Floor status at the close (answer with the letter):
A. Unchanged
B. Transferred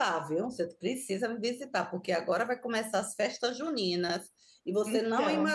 A